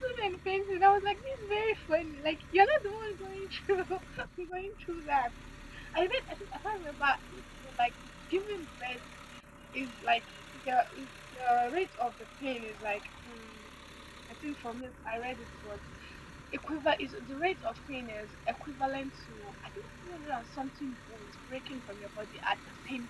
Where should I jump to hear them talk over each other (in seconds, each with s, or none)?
none